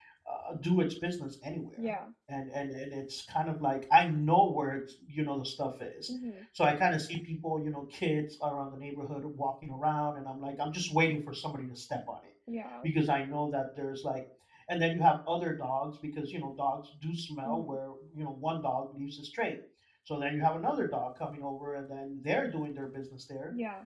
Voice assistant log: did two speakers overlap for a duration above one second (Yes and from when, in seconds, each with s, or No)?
No